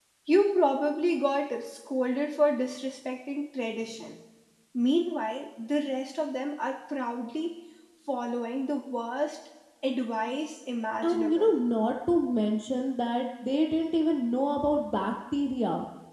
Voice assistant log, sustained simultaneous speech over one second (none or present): none